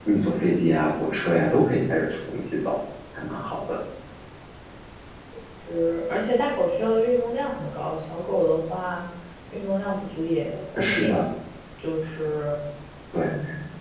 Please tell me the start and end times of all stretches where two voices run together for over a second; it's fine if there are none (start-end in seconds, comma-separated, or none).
none